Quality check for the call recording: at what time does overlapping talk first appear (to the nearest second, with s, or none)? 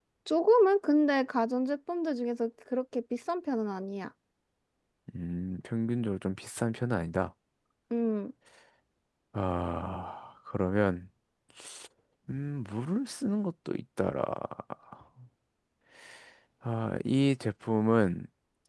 none